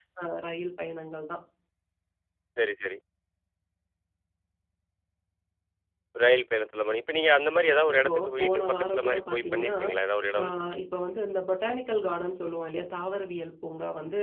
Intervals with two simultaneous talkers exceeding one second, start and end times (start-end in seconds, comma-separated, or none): 7.6-9.7